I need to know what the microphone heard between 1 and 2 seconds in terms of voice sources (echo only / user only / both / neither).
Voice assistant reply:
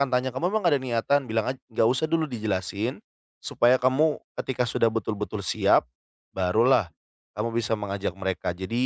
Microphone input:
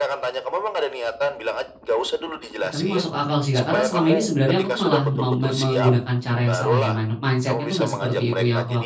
echo only